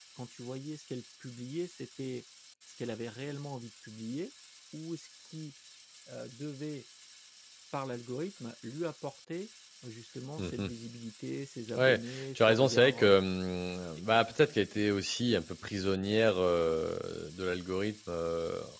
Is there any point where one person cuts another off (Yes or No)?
Yes